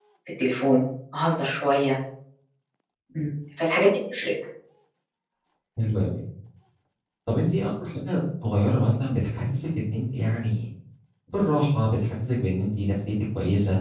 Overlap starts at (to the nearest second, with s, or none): none